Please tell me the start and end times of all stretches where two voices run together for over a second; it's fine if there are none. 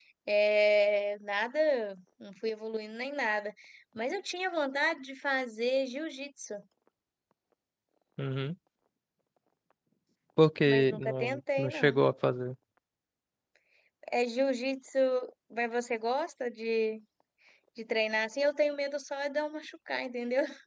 10.7-12.0

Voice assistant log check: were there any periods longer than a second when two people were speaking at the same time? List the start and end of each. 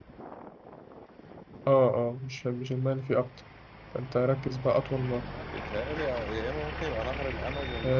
none

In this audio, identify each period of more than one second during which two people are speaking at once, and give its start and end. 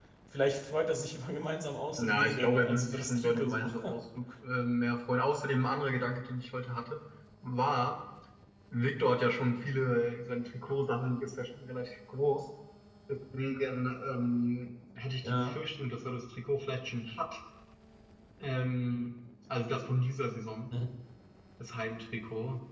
2.0-3.7

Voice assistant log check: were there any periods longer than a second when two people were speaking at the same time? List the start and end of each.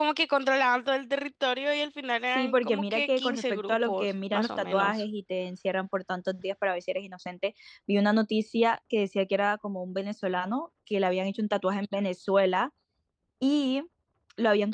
2.4-5.0

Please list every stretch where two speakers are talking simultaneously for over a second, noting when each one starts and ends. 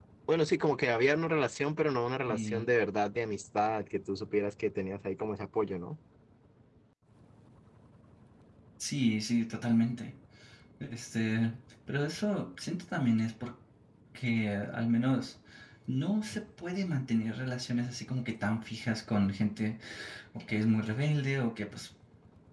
none

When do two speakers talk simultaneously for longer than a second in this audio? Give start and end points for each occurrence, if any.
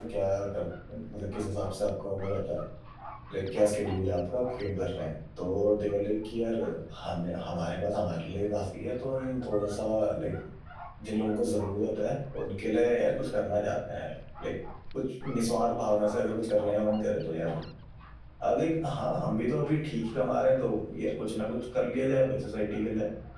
none

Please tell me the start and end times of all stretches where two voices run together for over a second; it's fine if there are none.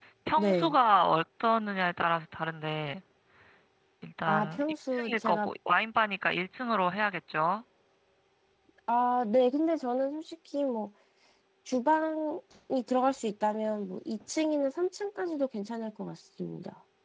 4.2-5.5

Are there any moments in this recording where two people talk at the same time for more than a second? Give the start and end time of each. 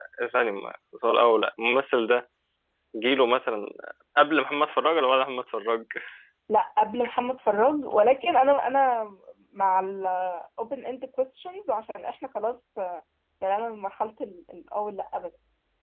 none

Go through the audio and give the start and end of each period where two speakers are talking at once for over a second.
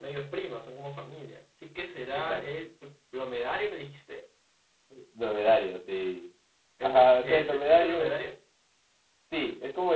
6.8-8.1

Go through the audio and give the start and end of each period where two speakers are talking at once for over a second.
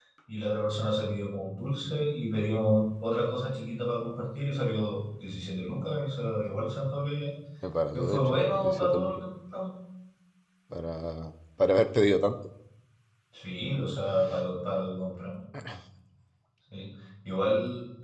7.9-9.2

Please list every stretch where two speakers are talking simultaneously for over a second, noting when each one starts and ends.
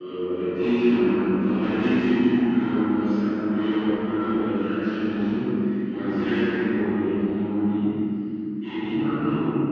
none

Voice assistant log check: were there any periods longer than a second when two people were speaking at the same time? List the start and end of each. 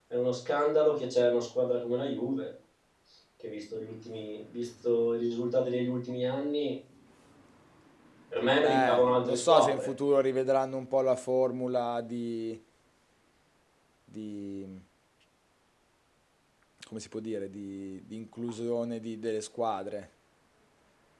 8.6-9.9

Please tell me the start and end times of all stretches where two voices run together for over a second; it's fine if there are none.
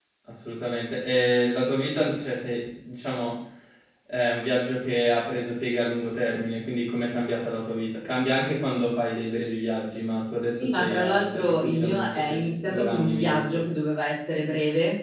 10.6-13.6

